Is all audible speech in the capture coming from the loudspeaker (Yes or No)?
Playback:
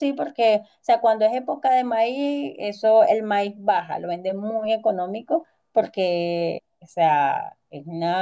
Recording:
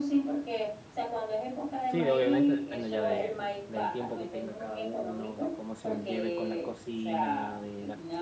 No